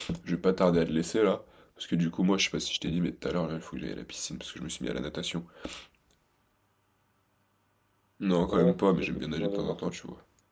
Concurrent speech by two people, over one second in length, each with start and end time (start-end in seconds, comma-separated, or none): 8.5-9.9